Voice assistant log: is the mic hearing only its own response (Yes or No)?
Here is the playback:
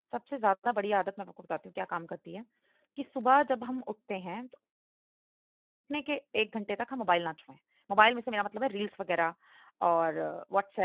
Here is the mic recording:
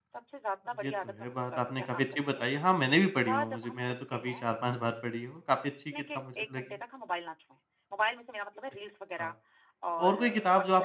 No